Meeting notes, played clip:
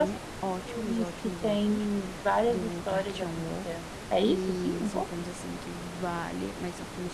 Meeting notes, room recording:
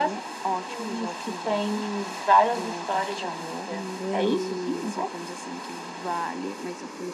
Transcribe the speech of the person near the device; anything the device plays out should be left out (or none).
Inglês.